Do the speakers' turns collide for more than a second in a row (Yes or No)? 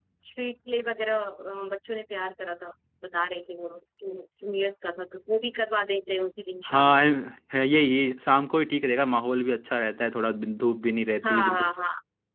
No